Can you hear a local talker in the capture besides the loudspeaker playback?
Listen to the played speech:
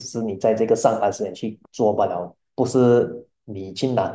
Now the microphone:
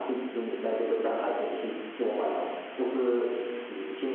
No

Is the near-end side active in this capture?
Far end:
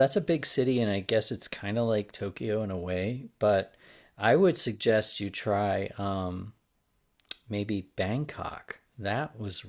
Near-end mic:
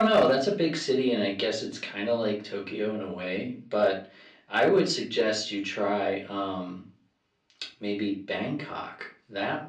No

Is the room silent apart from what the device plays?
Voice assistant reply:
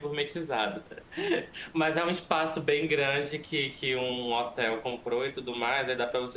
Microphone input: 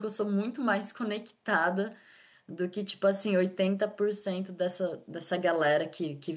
No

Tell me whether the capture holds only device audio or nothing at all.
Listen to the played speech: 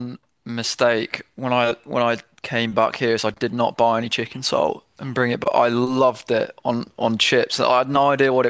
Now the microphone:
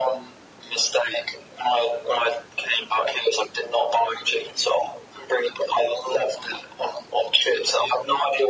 Yes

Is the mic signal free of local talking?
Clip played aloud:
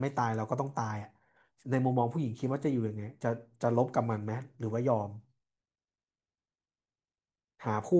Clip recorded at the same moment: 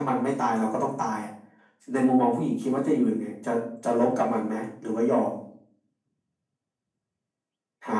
Yes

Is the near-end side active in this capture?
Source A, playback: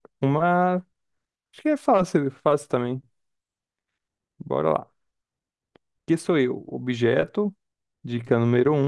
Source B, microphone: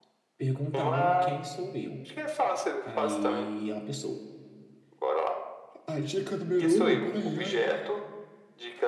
Yes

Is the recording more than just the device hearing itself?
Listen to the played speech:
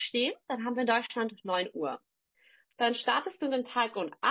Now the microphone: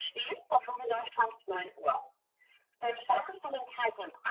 No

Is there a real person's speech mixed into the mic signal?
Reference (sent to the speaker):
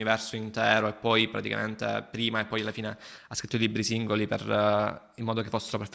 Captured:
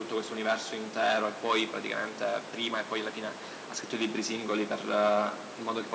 No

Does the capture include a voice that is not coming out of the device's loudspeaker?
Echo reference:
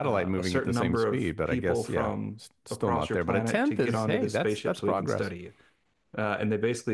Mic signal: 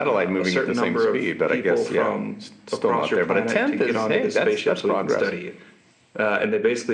No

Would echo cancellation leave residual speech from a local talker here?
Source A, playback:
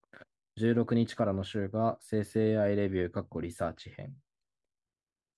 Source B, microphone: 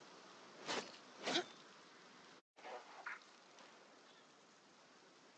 No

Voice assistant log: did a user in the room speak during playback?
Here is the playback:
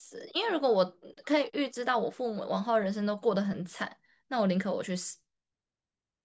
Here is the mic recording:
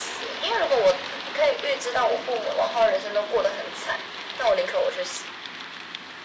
No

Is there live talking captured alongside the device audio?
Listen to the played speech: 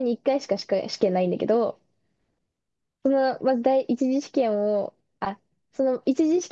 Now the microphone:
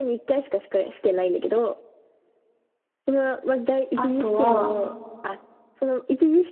Yes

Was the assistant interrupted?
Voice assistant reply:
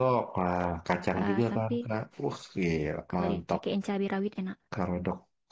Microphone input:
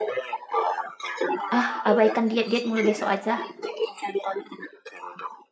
Yes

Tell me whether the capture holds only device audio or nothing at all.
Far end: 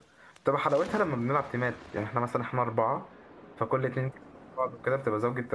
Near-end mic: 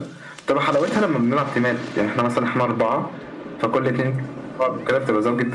Yes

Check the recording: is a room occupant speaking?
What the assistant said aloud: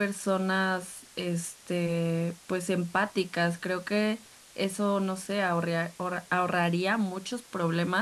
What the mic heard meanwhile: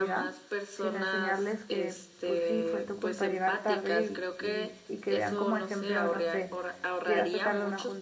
Yes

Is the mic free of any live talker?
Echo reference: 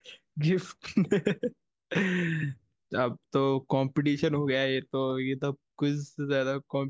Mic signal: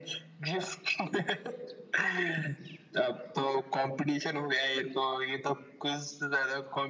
Yes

